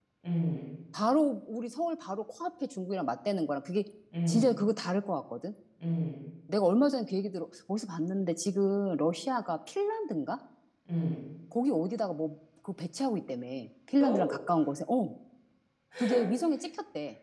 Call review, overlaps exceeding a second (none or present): none